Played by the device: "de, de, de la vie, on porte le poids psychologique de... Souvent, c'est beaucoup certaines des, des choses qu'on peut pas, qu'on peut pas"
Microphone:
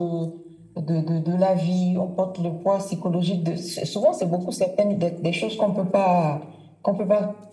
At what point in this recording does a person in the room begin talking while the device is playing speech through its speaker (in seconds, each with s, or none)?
none